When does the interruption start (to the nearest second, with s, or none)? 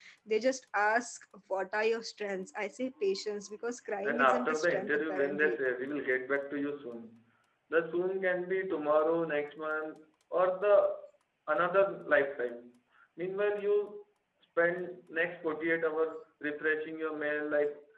4 s